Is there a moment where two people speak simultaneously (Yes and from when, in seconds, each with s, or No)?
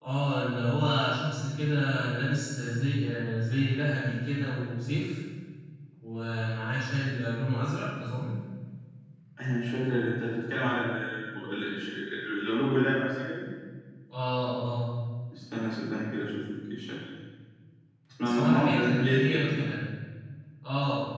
Yes, from 18.2 s